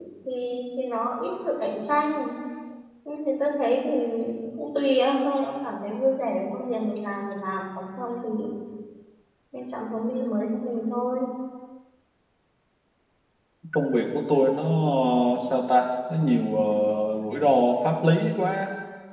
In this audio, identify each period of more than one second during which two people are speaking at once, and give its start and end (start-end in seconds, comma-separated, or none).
none